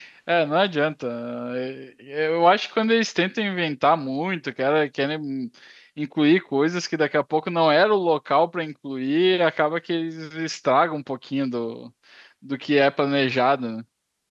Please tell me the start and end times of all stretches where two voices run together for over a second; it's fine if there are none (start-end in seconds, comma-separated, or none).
none